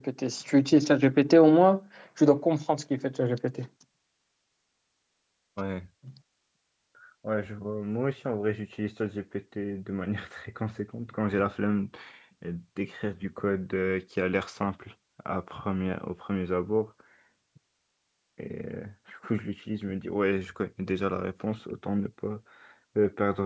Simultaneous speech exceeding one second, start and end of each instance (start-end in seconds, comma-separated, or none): none